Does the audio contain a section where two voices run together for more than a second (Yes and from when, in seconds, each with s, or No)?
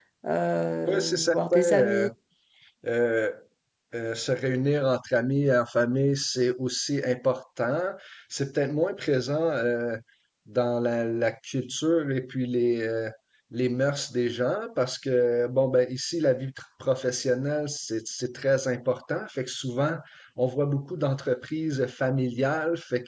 Yes, from 0.8 s